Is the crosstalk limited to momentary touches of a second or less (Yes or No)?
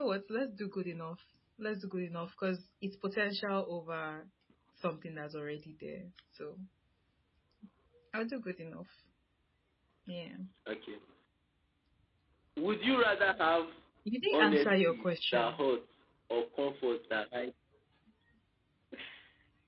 No